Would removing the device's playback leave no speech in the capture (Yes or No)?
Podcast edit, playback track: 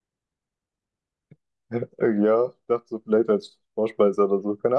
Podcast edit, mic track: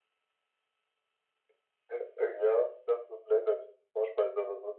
Yes